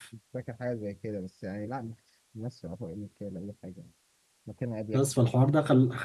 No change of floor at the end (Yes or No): No